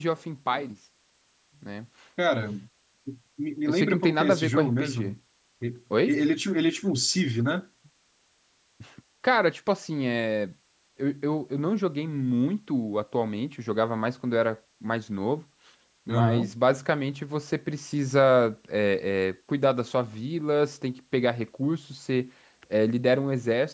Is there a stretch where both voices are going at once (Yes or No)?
Yes